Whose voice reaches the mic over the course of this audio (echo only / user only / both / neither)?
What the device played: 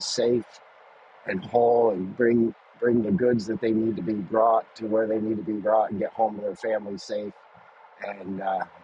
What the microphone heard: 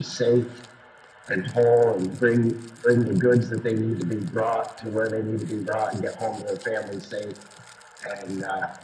echo only